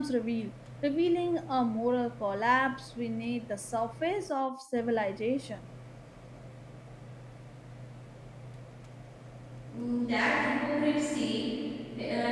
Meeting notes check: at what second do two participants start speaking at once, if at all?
none

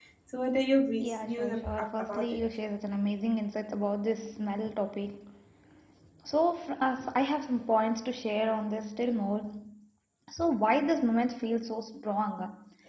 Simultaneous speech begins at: 1 s

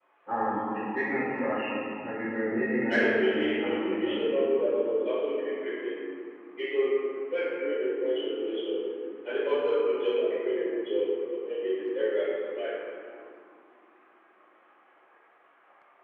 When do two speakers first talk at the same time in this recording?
3 s

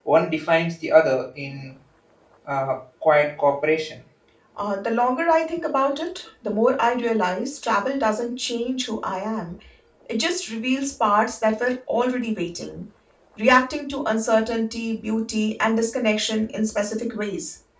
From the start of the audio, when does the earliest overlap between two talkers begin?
none

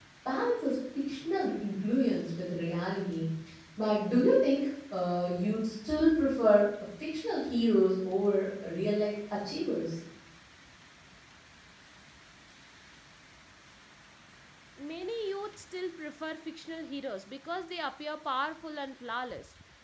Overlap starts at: none

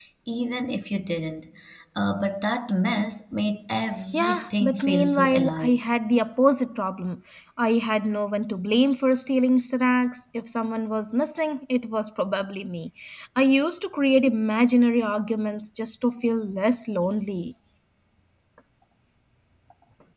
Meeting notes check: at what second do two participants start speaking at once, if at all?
4 s

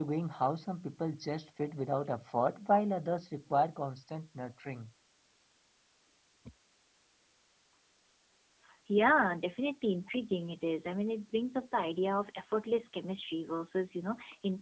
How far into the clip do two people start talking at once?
none

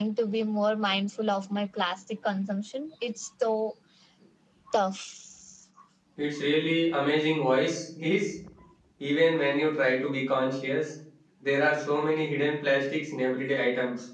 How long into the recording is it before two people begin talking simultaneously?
none

